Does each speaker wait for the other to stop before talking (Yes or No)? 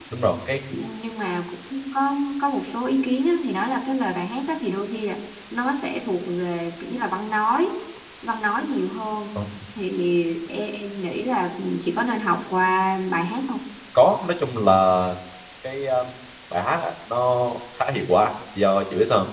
Yes